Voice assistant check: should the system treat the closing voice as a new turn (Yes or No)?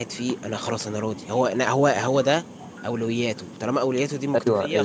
Yes